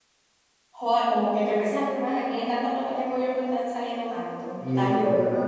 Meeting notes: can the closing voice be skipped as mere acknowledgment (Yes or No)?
No